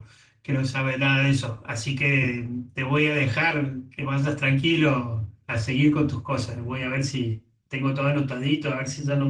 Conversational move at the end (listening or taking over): listening